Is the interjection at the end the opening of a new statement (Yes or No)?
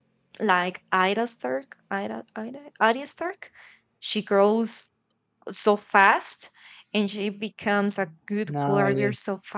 No